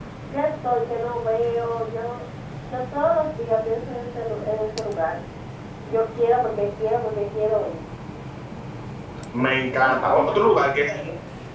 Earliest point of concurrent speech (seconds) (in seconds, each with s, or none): 9.4 s